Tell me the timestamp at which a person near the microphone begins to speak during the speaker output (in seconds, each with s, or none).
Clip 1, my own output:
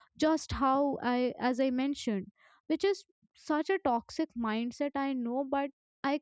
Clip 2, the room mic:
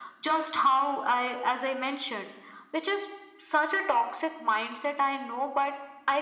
none